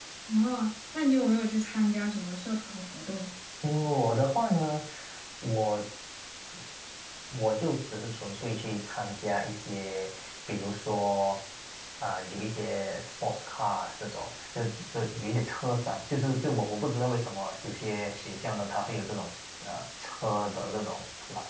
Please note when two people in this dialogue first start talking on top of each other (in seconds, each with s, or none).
none